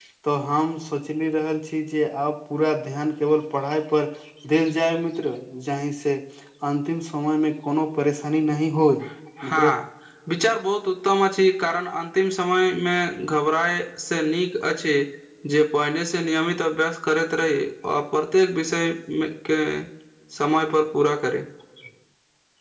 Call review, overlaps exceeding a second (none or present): none